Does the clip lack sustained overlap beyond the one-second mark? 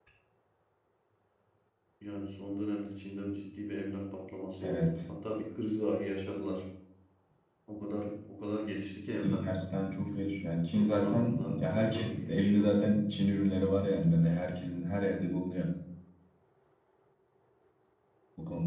No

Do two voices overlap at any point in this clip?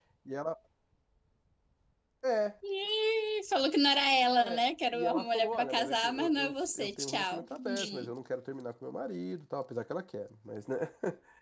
Yes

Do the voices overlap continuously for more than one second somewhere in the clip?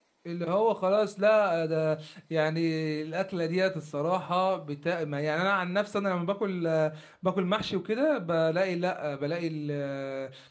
No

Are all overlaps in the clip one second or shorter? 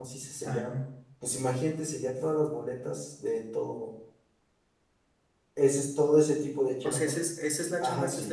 Yes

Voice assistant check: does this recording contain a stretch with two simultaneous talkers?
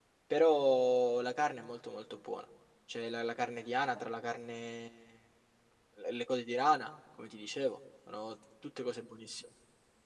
No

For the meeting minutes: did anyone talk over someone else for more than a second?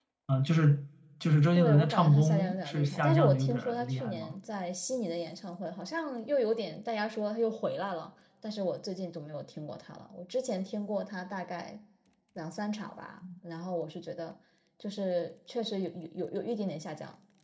Yes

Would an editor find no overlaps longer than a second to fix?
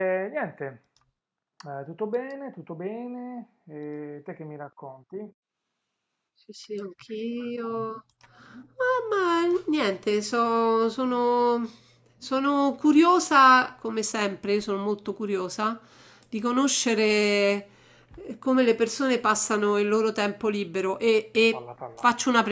Yes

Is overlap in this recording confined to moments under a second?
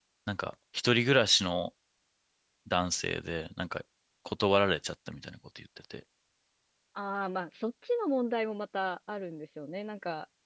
Yes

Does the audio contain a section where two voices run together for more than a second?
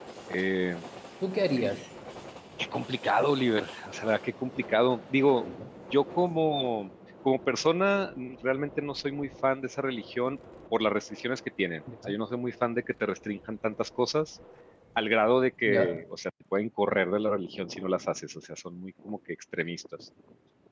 No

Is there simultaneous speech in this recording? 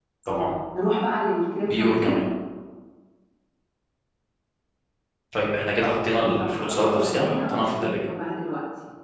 Yes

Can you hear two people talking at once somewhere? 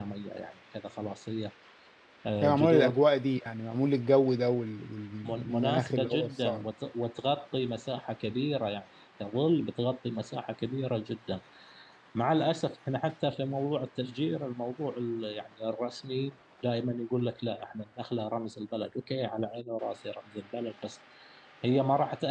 Yes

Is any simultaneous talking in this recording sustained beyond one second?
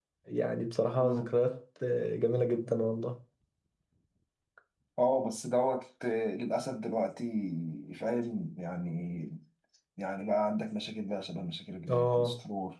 No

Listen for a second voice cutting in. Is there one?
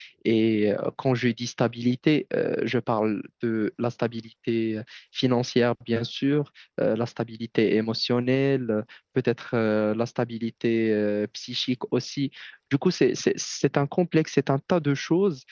No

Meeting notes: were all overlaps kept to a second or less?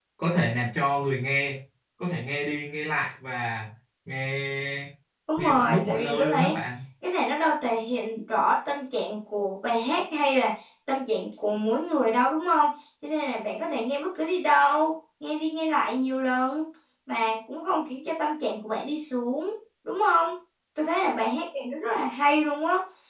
No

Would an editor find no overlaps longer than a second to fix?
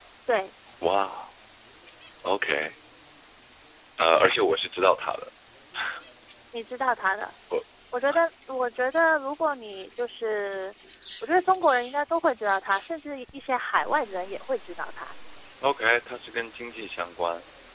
Yes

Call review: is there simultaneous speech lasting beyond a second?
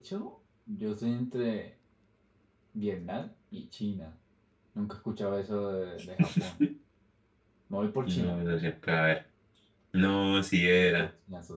No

